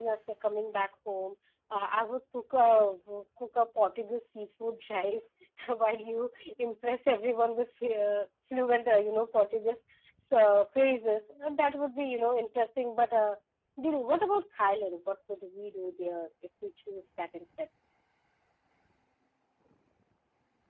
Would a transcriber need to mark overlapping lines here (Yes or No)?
No